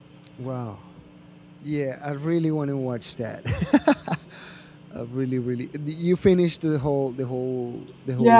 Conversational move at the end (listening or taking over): taking over